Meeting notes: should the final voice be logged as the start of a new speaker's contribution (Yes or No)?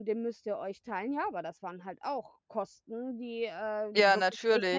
No